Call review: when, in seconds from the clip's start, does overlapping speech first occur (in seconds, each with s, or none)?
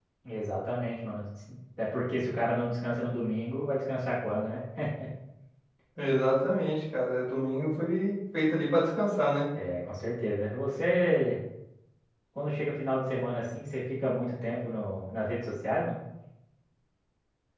none